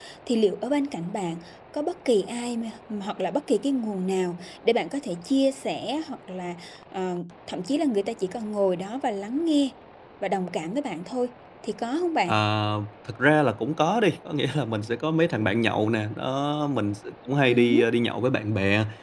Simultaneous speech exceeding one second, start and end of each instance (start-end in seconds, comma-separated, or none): none